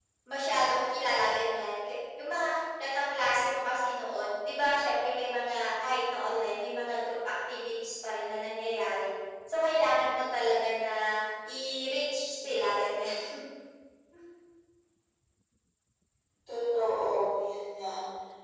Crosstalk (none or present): none